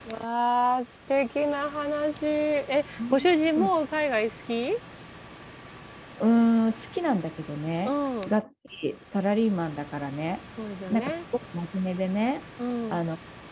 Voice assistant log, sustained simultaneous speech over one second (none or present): none